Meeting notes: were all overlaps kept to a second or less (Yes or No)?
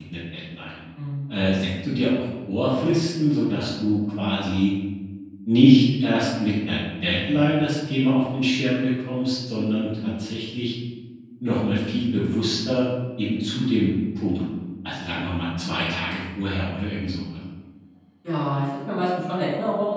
Yes